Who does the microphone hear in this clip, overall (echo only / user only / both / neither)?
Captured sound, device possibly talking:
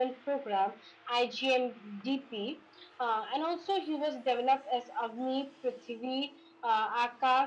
echo only